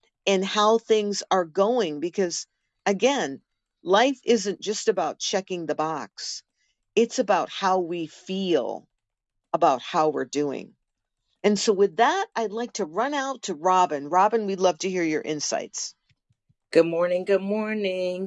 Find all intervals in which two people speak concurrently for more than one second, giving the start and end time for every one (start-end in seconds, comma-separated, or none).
none